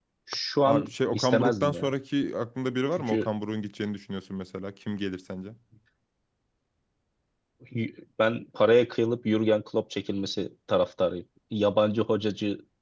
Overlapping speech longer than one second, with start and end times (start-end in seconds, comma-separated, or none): 0.6-1.9